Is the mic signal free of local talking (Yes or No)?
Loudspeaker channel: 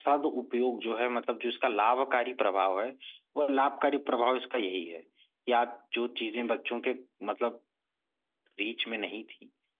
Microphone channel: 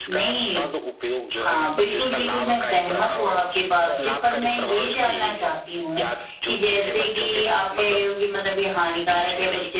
No